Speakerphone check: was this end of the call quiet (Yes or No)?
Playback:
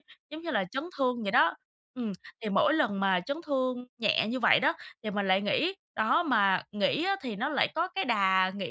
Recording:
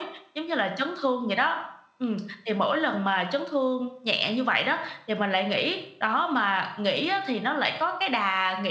Yes